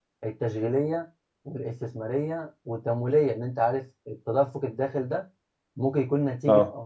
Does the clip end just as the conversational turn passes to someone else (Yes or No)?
No